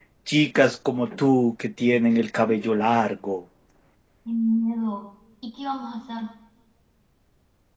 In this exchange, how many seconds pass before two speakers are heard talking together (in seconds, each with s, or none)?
none